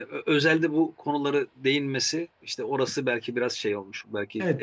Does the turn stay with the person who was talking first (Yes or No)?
No